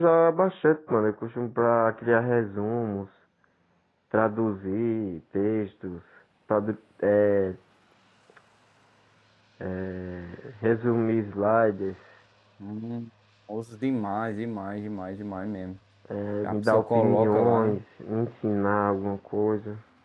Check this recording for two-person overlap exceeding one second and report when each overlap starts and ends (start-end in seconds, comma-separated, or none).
16.4-17.8